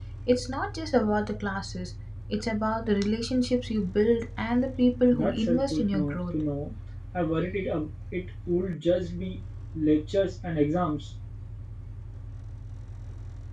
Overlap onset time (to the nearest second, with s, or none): 5 s